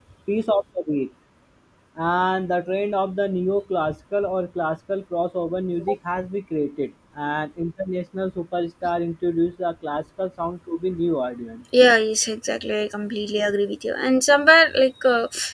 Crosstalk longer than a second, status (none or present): none